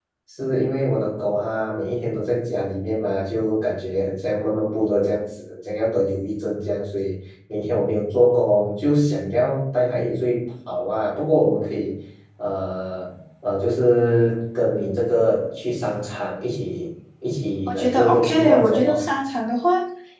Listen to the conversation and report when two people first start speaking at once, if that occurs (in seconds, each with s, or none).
17.7 s